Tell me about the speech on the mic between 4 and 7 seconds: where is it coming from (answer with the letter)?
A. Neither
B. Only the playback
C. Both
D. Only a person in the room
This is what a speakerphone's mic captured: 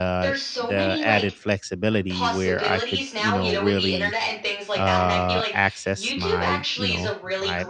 C